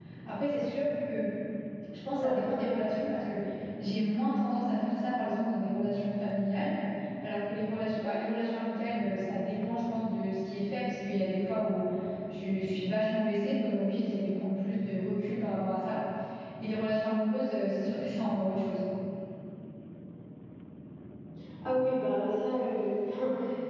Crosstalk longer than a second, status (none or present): none